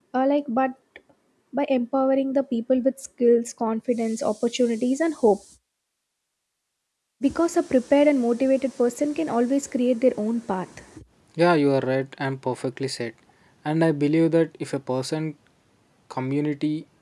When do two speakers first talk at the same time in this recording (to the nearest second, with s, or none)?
none